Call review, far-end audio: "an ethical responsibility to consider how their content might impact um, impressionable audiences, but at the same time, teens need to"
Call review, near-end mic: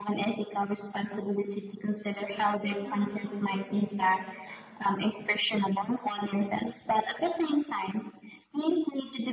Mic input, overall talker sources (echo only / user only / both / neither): both